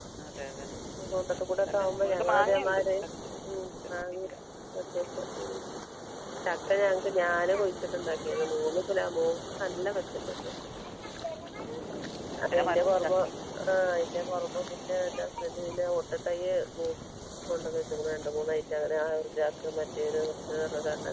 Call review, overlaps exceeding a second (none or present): present